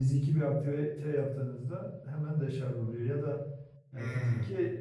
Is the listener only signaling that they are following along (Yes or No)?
Yes